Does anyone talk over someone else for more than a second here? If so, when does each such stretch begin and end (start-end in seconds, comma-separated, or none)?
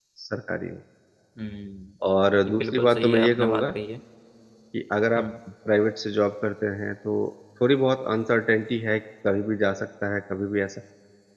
2.5-3.7